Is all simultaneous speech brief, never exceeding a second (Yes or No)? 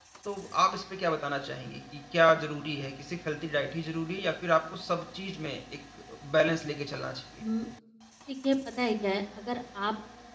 Yes